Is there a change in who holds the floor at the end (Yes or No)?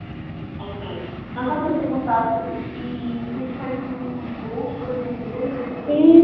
Yes